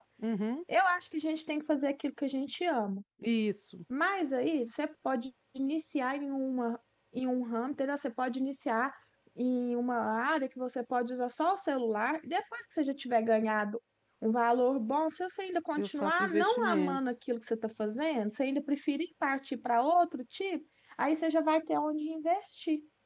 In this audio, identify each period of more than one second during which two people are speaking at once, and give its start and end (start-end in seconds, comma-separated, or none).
15.8-17.0